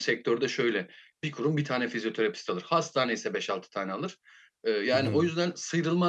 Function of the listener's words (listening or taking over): listening